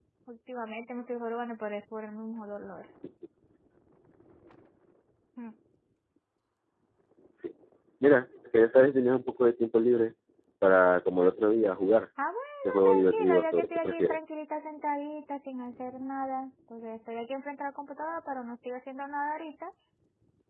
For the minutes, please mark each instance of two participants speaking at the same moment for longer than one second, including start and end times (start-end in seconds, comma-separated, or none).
12.8-14.2